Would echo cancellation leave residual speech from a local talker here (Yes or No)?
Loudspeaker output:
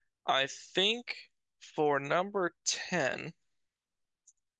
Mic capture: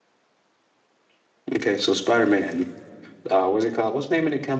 Yes